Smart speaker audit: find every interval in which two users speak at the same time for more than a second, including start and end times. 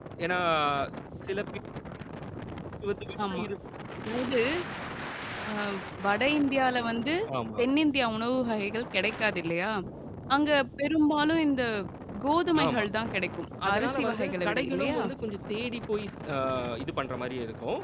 13.7-15.0

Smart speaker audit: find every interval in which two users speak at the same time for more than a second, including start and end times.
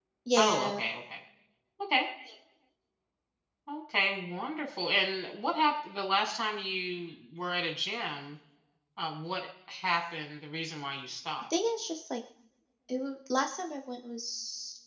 none

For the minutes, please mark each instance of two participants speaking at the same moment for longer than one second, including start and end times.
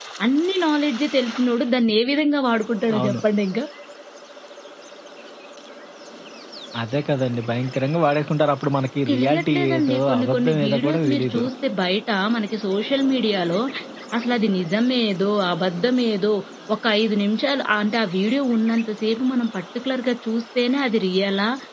9.1-11.4

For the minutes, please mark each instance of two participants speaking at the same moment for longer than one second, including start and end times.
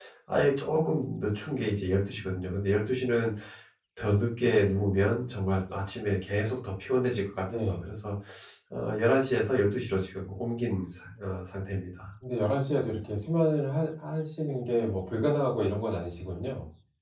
none

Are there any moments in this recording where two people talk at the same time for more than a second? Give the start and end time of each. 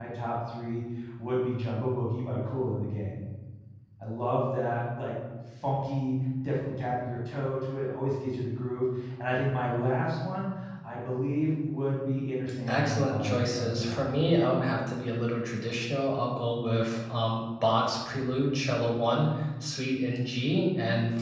12.7-14.1

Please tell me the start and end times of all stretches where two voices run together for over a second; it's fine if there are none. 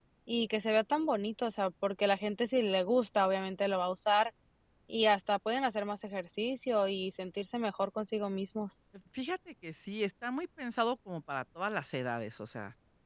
none

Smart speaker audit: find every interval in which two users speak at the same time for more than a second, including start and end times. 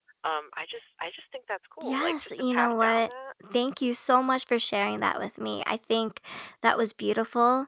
1.8-3.1

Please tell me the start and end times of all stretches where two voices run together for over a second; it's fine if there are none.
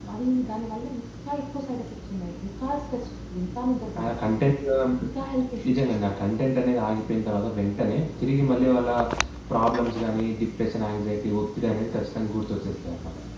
none

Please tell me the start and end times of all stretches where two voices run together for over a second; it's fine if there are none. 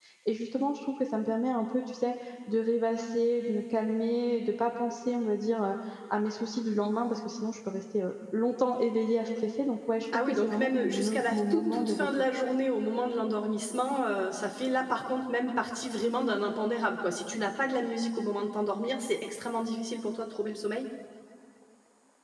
10.3-12.3

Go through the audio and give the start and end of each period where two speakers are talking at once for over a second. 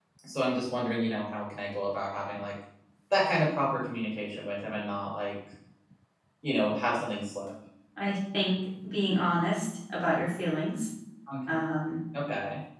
none

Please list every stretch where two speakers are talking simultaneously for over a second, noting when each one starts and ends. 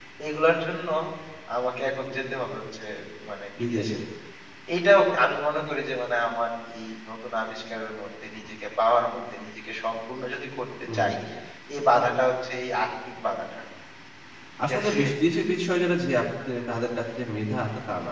none

